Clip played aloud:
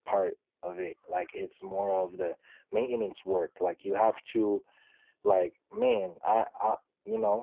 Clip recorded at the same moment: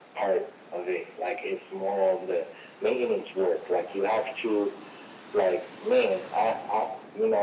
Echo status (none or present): present